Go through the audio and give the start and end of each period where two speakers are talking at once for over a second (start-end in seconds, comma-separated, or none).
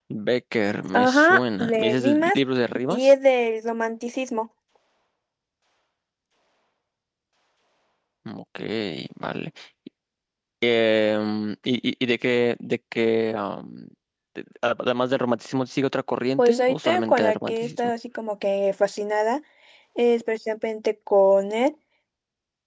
0.9-2.4, 16.4-17.9